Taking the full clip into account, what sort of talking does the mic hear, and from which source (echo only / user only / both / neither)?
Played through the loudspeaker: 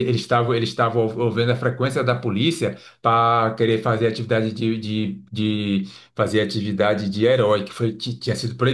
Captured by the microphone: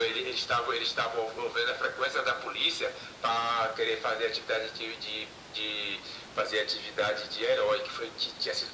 echo only